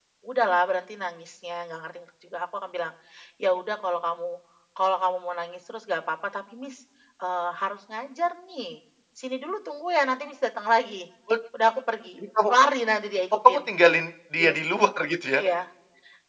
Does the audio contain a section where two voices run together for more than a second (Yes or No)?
No